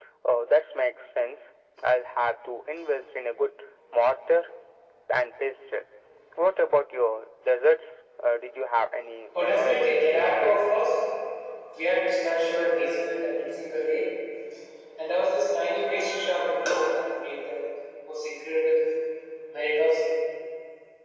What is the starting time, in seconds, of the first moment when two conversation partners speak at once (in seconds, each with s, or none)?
9.3 s